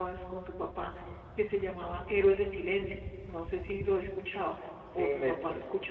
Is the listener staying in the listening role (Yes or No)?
No